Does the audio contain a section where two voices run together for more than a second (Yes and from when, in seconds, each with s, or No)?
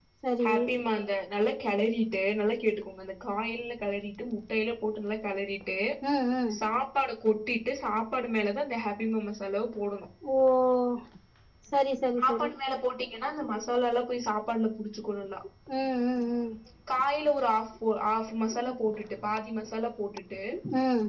No